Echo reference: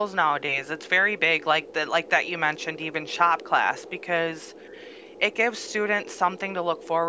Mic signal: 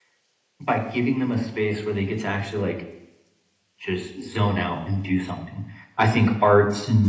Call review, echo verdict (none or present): none